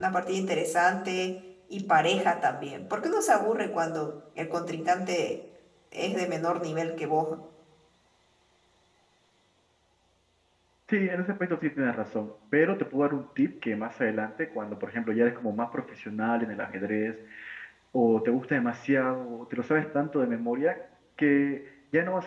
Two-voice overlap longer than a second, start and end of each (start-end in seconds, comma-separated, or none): none